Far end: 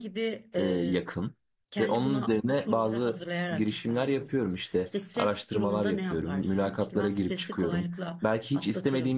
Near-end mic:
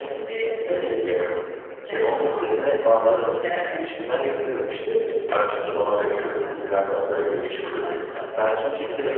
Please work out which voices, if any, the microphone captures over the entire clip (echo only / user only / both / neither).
echo only